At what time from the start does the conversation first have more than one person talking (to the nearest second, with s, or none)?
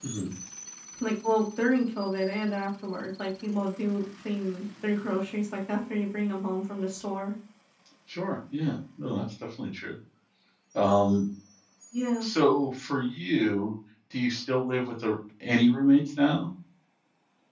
none